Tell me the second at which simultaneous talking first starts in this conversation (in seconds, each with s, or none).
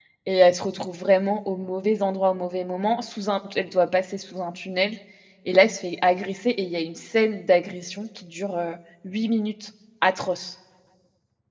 none